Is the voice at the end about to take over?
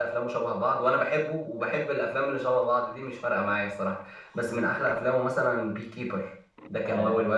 Yes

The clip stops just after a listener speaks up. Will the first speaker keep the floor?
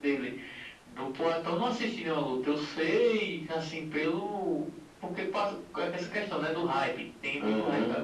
No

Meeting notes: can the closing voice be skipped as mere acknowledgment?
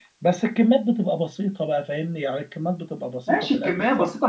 No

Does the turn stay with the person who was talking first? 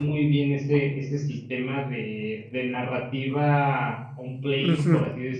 No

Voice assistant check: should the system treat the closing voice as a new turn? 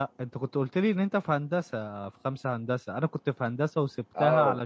No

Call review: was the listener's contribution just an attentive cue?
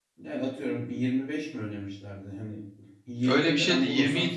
No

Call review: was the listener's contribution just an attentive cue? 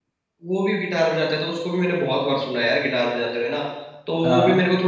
Yes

